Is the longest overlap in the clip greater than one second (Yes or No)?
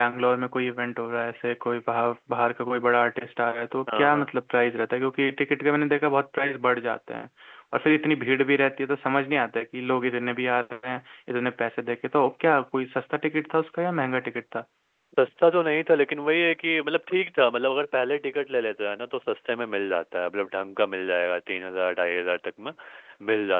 No